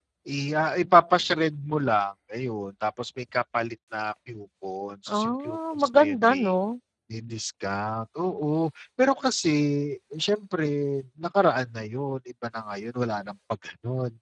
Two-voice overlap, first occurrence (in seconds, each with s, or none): 5.1 s